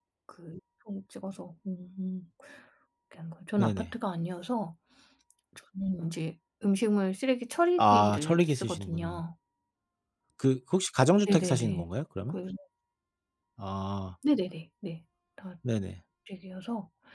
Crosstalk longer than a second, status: present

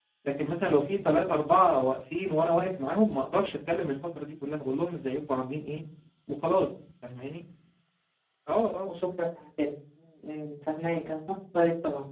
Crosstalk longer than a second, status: none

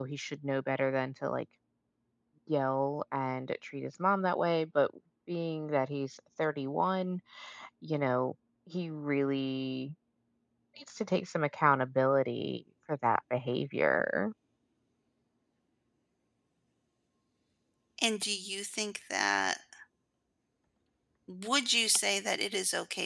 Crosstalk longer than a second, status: none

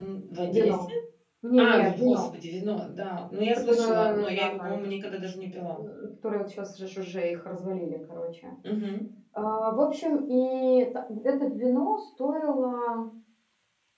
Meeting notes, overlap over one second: present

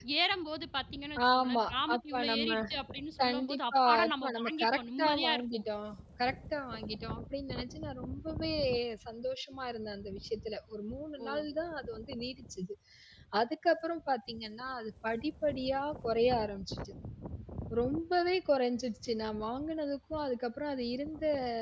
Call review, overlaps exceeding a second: present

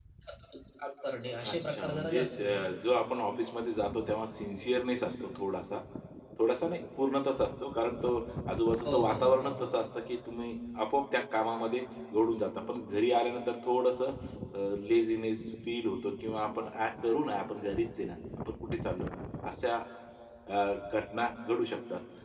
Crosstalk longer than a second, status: present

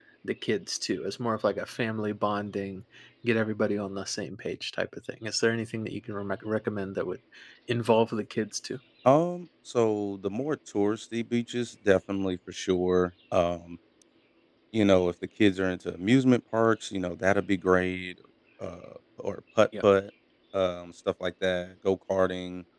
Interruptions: none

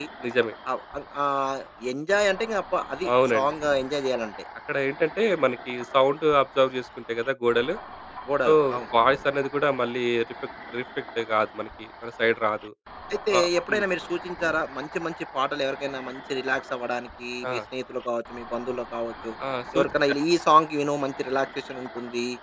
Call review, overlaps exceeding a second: none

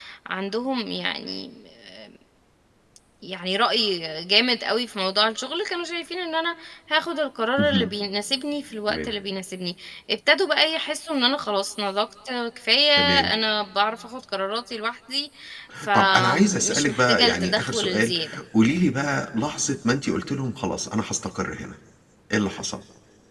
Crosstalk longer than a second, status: present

